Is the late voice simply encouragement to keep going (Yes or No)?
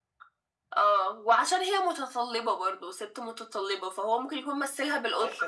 No